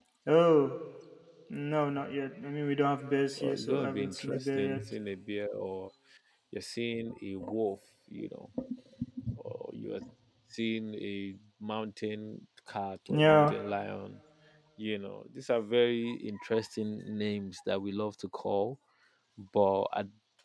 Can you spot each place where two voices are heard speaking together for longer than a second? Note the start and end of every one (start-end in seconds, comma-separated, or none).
3.4-4.8